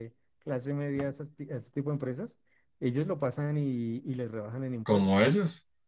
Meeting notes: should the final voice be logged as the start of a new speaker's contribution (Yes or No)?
Yes